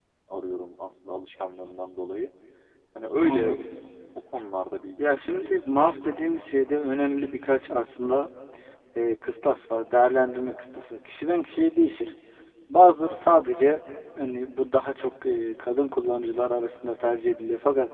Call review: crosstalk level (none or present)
present